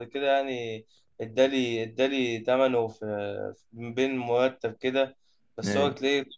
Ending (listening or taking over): listening